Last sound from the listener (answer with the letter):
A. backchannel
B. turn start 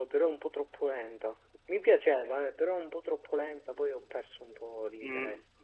B